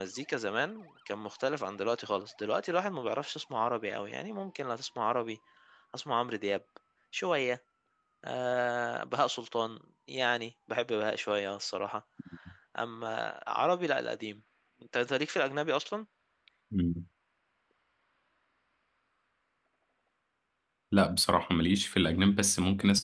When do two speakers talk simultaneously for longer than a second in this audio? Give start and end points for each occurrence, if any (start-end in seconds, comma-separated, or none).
none